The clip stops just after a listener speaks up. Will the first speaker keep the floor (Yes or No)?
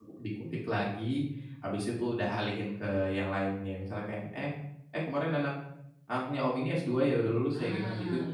No